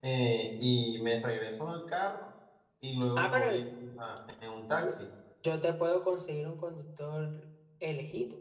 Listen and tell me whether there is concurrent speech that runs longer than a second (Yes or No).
No